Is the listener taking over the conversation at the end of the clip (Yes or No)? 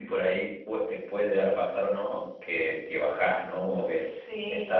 No